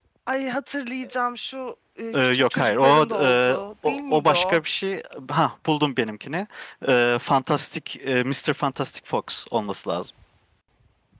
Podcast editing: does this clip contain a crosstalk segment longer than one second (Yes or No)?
Yes